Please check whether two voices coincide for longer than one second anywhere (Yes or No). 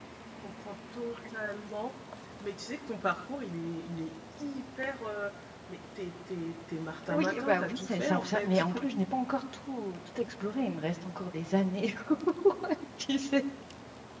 Yes